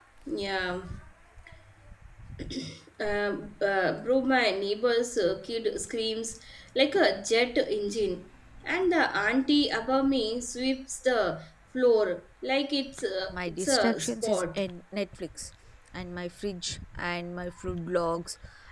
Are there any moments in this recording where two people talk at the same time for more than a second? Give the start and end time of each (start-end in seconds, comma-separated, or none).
13.3-14.6